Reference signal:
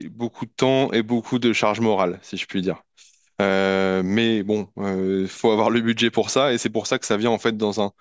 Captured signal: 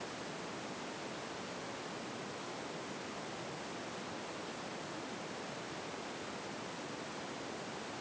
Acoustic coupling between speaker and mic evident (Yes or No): No